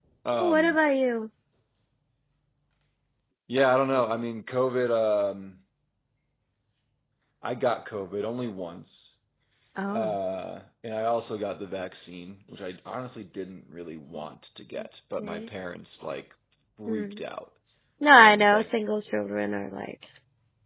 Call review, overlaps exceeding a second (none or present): none